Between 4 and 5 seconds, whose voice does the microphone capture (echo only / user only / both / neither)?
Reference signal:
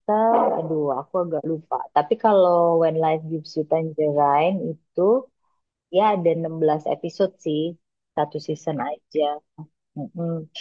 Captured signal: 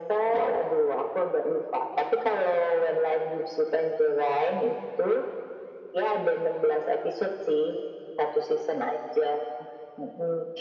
echo only